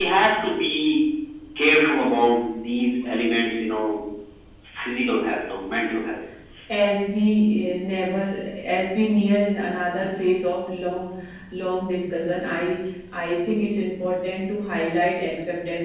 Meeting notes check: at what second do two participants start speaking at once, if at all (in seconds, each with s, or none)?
none